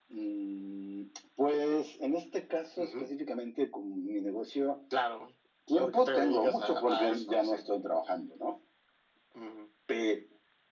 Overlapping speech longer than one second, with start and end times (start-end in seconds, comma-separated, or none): 5.8-7.7